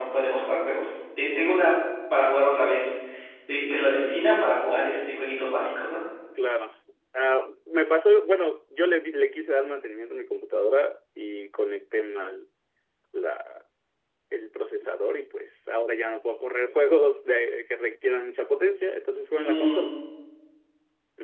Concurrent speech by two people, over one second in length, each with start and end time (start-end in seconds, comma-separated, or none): none